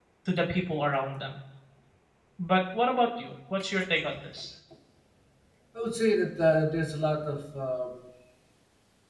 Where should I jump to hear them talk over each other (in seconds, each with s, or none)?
none